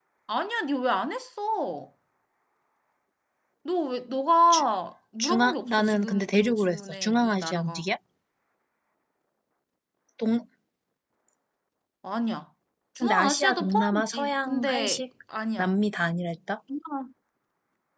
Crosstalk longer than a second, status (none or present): present